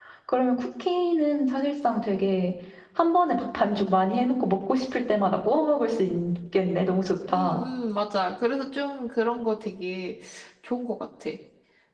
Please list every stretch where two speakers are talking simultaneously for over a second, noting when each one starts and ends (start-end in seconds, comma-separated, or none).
none